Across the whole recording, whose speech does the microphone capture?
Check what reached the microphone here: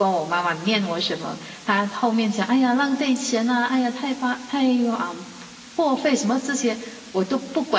user only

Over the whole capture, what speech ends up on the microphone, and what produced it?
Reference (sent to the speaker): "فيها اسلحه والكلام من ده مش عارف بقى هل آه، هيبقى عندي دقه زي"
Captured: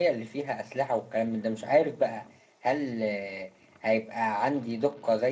echo only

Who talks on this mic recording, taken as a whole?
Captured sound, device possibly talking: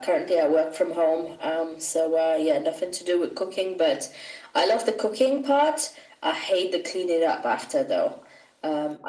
echo only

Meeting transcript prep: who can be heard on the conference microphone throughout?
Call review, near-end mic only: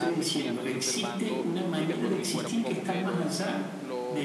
both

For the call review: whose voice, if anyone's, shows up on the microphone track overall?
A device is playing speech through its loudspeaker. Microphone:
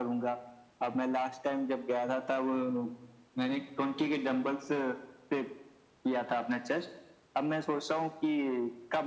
echo only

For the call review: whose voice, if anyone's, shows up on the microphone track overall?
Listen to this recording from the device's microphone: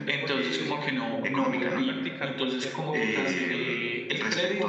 both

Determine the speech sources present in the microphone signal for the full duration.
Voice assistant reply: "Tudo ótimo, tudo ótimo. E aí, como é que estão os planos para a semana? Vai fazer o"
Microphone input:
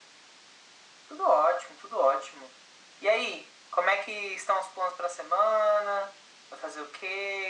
echo only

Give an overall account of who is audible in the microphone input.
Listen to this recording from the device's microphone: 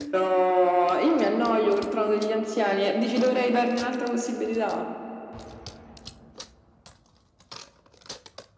echo only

